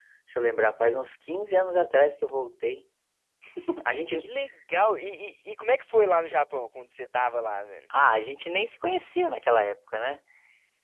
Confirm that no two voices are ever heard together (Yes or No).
Yes